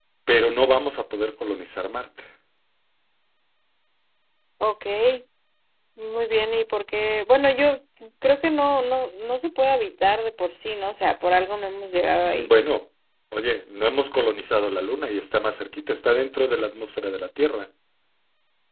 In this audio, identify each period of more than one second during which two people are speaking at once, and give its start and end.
none

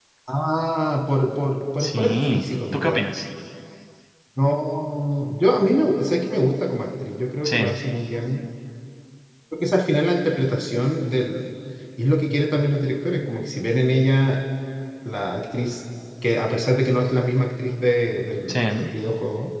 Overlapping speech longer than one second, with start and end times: 1.8-3.0

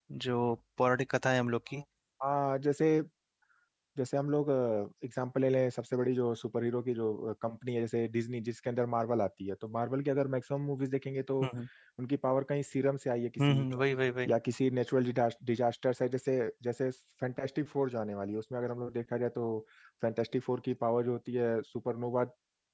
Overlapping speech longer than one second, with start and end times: none

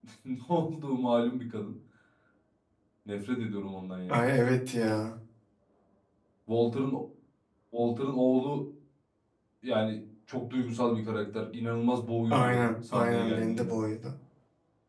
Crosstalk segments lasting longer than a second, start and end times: 12.3-13.7

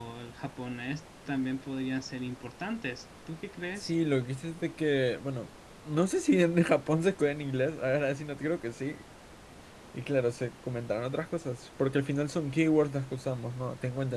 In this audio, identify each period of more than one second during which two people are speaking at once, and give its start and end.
none

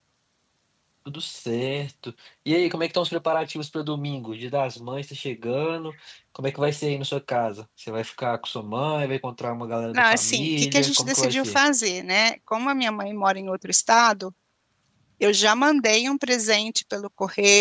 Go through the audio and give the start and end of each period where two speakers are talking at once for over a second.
9.9-11.6

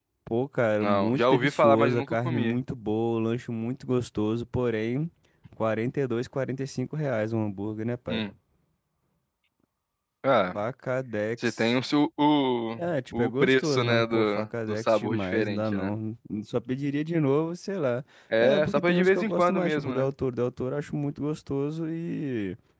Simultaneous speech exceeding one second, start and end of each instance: 0.8-2.6, 12.8-15.9, 18.4-20.1

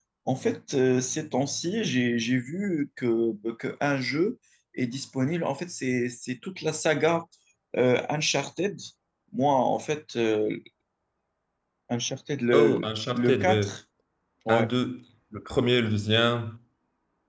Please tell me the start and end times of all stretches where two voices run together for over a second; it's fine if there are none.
12.5-13.7

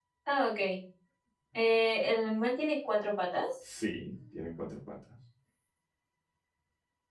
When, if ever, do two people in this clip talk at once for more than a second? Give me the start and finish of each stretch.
none

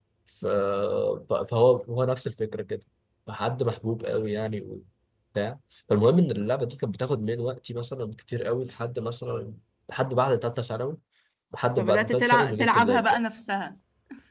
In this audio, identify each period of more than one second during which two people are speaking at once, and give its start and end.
11.8-13.2

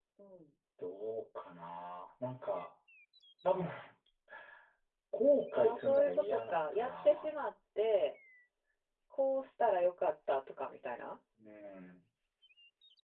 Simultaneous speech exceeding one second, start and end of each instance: 5.5-7.3

